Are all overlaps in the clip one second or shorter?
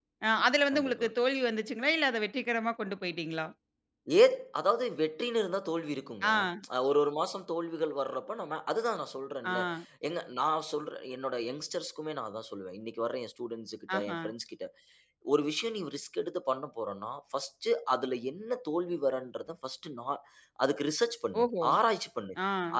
Yes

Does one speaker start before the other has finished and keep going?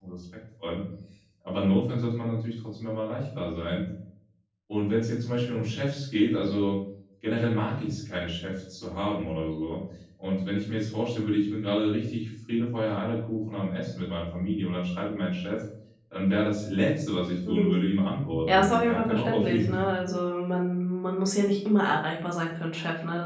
Yes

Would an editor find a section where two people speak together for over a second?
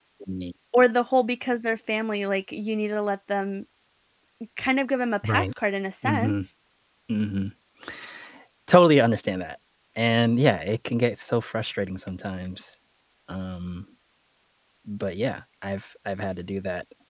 No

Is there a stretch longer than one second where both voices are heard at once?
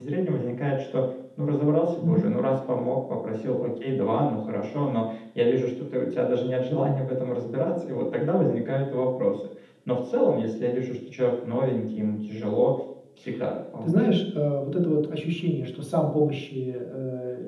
No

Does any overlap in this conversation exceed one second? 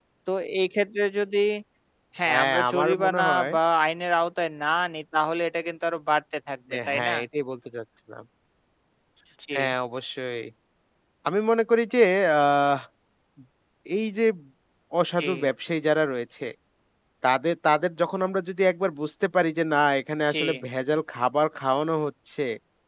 Yes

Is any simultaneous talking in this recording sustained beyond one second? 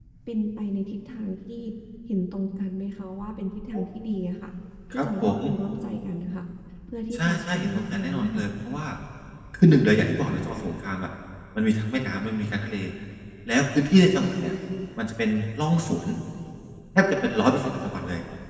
Yes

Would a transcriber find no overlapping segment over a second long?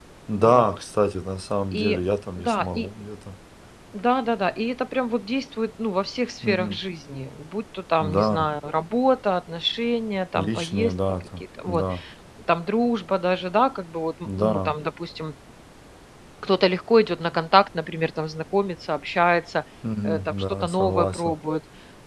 No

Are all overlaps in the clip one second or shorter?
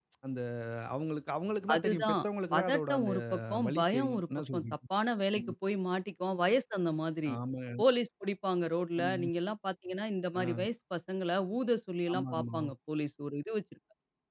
No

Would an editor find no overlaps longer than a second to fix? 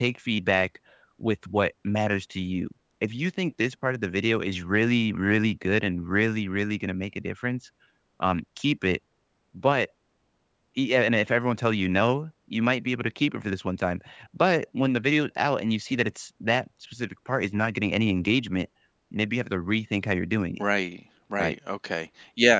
Yes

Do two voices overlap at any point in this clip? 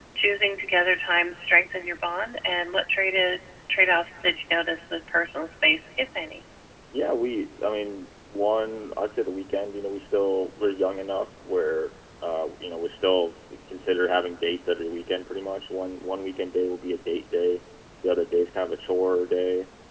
No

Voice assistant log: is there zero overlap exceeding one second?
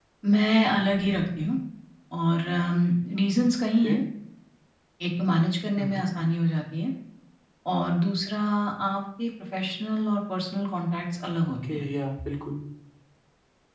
Yes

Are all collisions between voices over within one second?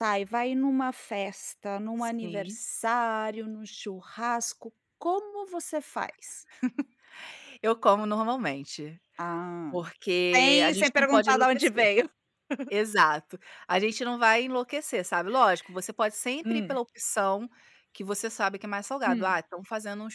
No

